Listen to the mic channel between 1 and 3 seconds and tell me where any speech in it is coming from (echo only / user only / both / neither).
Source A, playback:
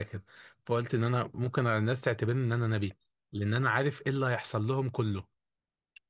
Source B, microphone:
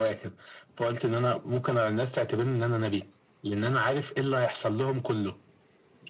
echo only